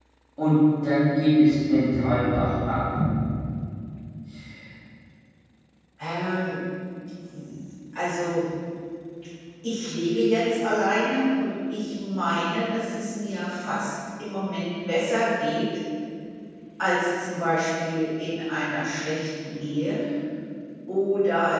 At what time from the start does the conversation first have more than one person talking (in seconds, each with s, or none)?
none